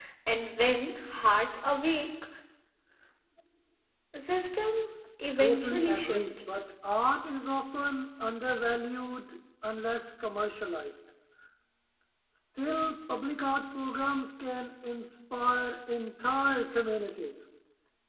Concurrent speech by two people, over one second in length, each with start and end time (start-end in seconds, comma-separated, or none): 5.4-6.6